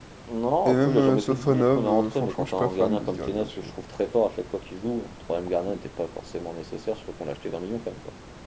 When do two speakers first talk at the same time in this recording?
1 s

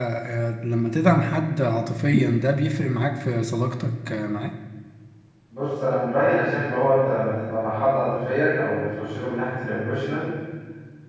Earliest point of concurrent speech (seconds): none

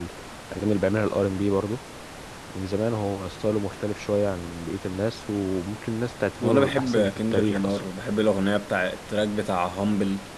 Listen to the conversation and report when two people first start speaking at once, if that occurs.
6 s

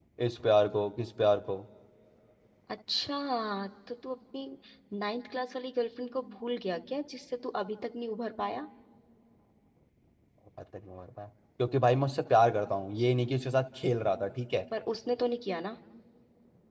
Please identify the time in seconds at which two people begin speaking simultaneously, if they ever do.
none

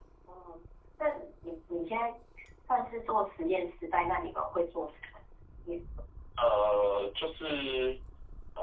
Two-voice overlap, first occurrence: none

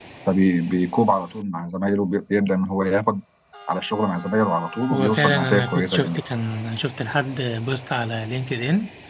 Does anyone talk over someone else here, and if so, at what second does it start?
5 s

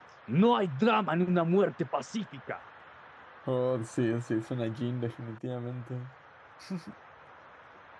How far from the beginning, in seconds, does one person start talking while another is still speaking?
none

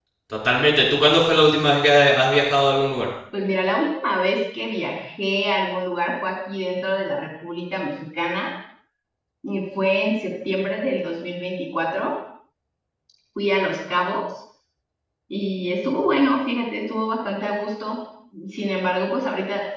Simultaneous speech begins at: none

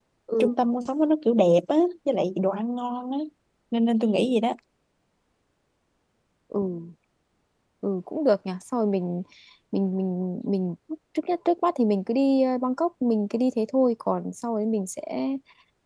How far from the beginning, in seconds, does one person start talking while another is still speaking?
none

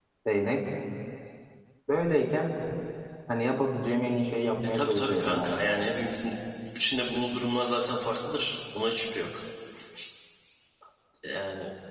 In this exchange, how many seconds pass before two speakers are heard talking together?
5 s

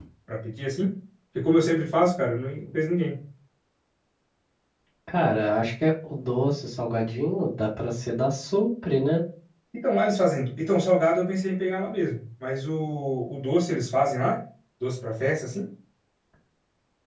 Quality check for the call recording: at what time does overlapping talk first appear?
none

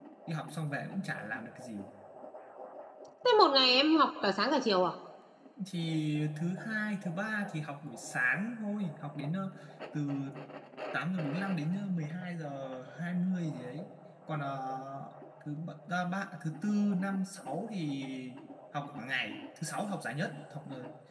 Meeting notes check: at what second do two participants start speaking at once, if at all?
none

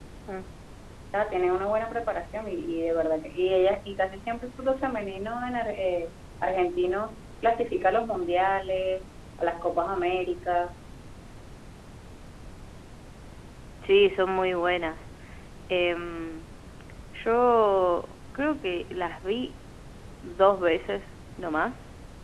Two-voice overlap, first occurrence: none

